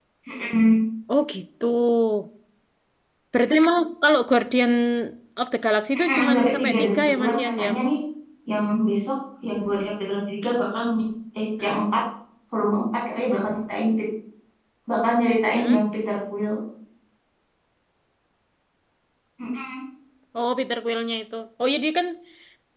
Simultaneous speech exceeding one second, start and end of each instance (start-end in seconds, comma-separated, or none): 5.9-7.7